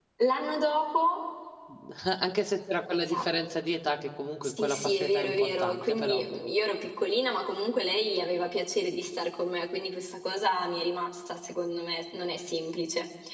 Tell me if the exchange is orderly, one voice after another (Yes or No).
No